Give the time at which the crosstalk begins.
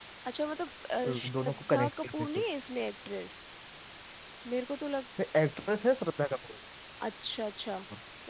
1.0 s

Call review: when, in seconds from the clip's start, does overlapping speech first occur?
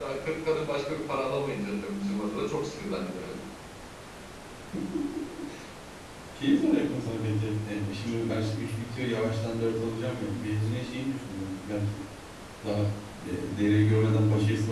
none

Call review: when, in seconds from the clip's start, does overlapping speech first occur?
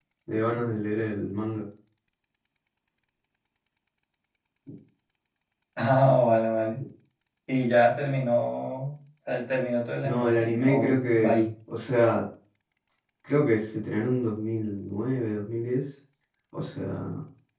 10.0 s

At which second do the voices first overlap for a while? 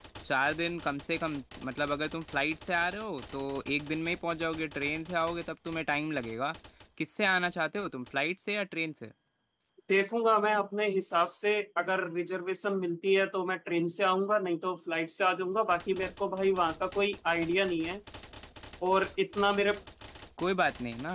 none

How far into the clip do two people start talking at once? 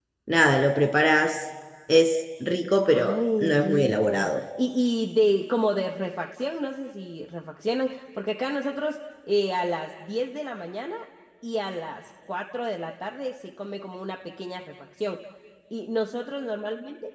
2.8 s

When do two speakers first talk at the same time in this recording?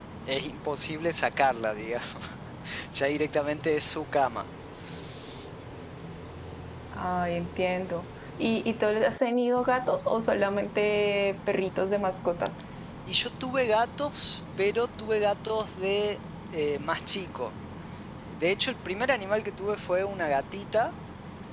none

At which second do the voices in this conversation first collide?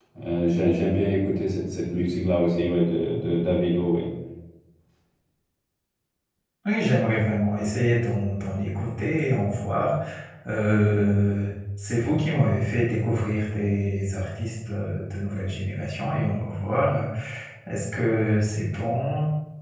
none

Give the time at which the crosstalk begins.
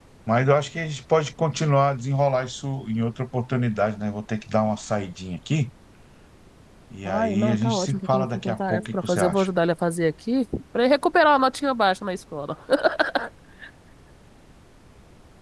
7.0 s

